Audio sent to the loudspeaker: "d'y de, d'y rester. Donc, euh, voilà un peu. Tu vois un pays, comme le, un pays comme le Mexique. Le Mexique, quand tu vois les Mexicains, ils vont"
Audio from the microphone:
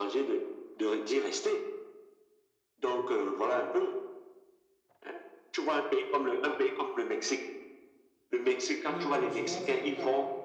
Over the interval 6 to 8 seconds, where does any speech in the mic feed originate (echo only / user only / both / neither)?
echo only